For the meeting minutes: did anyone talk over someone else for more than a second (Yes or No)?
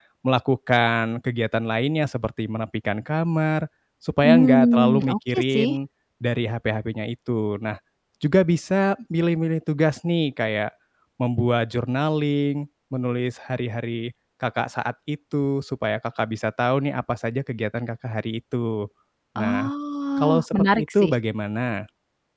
Yes